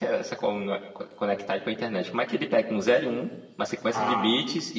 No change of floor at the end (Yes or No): Yes